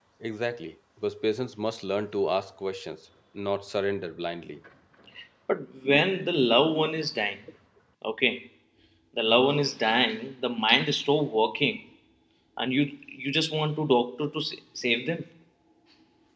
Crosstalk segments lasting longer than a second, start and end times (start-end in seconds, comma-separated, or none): none